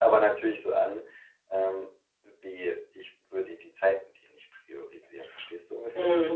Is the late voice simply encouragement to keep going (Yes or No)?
No